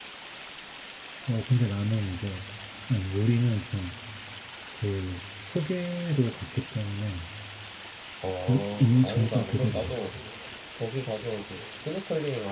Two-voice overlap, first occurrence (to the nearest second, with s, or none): 8 s